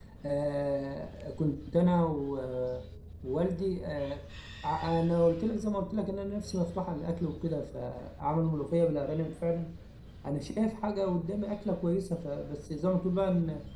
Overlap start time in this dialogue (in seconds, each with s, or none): none